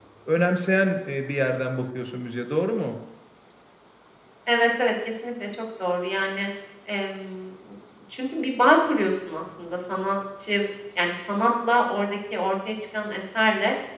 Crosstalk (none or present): none